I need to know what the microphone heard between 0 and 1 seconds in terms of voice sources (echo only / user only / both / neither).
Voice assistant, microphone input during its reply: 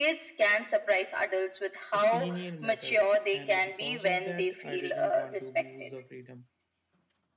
echo only